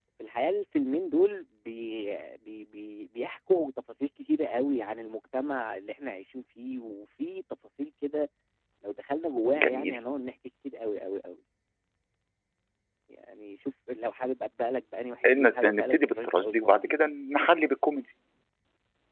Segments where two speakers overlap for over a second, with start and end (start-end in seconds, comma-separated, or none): 15.4-17.0